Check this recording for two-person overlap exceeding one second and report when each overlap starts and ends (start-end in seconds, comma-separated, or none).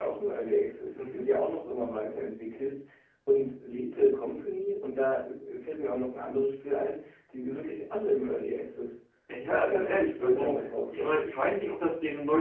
9.5-11.2